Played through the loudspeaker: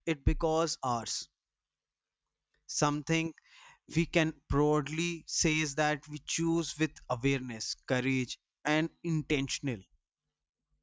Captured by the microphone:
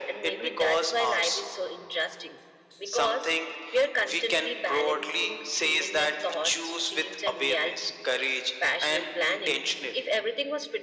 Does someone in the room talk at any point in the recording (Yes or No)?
Yes